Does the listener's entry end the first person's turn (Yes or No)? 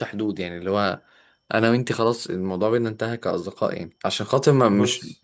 No